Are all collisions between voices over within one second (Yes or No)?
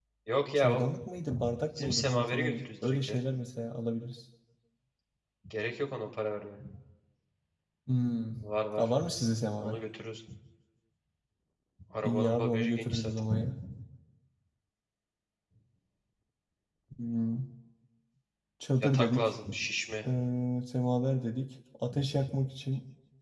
No